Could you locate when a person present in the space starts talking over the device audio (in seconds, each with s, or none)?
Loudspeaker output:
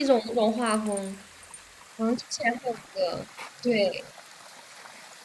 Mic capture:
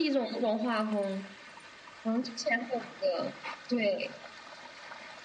none